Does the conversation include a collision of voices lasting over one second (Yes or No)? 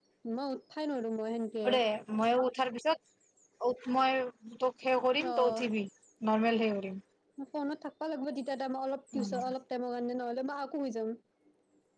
No